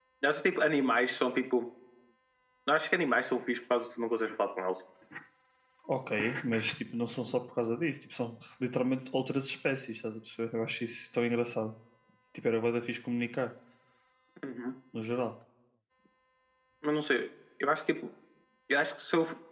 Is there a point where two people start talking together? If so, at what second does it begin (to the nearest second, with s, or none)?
none